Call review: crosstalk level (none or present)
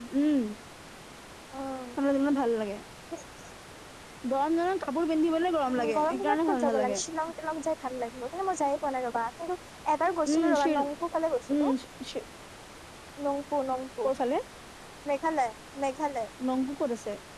present